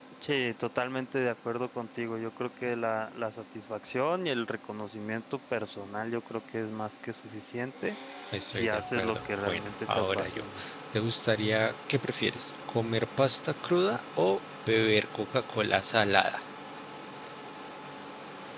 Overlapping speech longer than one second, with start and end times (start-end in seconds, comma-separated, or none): 8.5-10.4